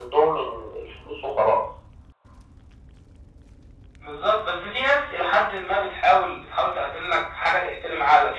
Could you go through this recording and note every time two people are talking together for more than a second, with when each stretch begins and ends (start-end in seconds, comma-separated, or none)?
none